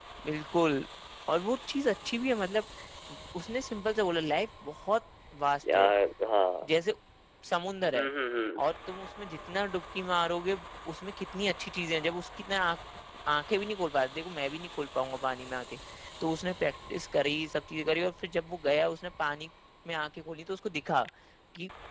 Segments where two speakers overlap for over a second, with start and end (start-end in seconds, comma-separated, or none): none